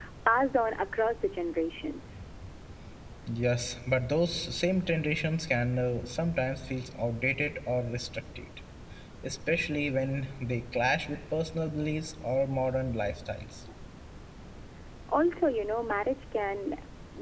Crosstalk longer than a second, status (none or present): none